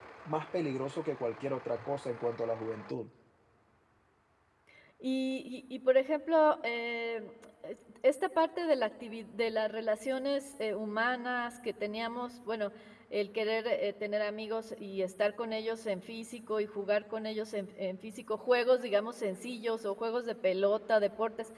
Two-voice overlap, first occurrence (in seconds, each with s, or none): none